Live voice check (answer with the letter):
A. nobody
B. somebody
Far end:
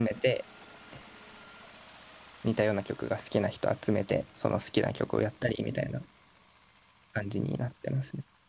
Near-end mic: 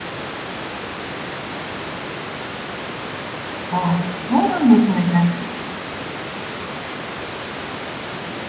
B